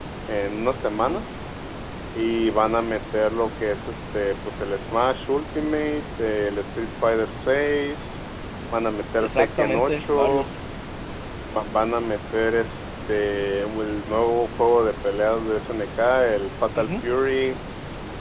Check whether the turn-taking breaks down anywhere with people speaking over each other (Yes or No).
Yes